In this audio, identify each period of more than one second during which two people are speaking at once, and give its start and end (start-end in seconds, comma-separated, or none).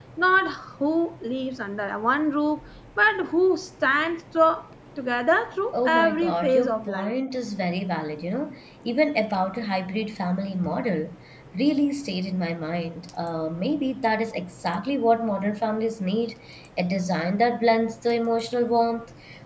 5.7-7.1